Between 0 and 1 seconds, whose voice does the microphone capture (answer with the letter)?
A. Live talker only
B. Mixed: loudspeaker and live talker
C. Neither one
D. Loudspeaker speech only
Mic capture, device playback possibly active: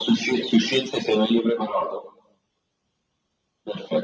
D